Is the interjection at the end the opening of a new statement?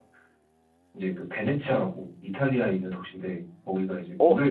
Yes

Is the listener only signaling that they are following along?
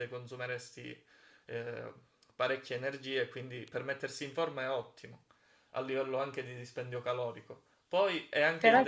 Yes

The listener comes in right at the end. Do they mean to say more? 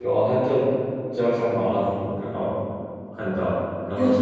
Yes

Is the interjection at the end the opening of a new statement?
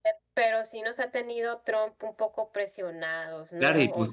Yes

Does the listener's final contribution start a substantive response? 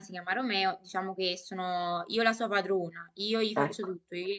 No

